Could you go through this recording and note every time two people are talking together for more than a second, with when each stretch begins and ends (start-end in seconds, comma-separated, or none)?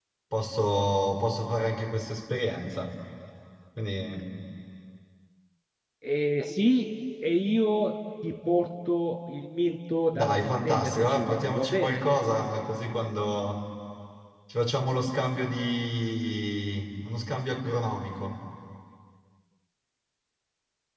10.1-12.1